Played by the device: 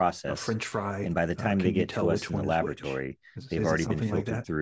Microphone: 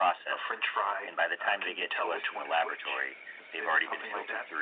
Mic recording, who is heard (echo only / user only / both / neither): echo only